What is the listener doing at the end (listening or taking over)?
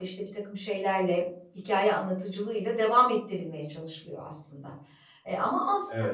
listening